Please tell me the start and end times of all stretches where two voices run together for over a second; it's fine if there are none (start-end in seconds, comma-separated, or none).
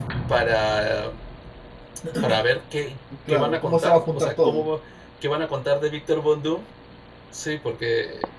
3.3-4.6